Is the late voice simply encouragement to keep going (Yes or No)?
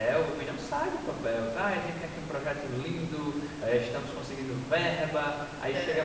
Yes